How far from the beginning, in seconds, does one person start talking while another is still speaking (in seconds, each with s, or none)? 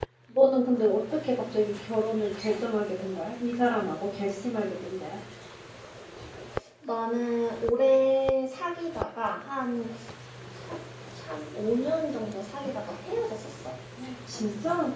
none